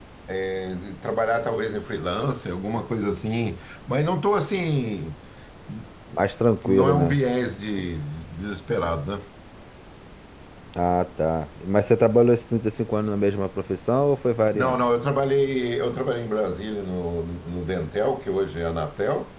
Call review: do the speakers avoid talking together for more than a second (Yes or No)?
Yes